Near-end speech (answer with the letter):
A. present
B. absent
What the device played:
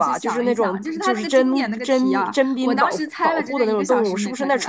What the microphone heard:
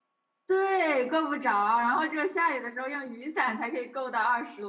A